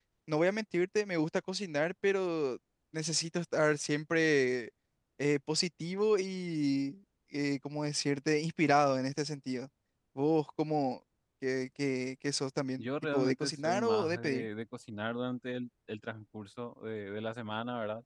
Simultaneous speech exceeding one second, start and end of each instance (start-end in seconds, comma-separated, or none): 12.8-14.5